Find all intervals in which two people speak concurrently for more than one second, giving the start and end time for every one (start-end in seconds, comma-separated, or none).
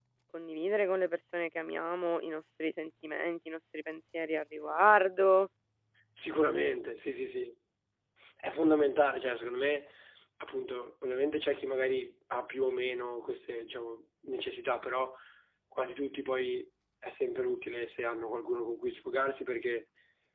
none